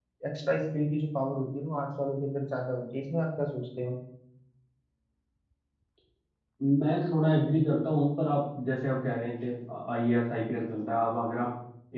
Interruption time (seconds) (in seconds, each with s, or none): none